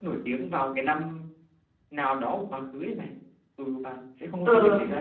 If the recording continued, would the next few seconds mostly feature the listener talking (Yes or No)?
No